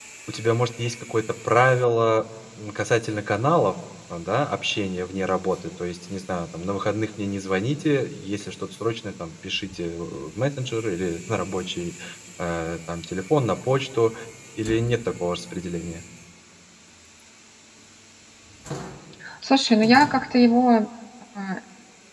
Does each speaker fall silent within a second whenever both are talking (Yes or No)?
Yes